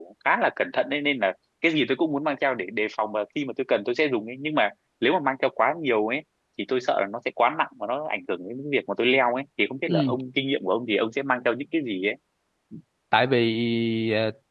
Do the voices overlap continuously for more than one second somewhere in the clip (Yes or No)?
No